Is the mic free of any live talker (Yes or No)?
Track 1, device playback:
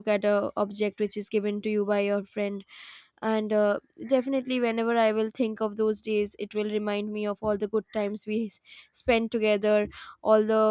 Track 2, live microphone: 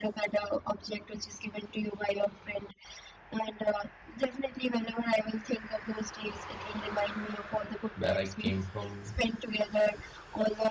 No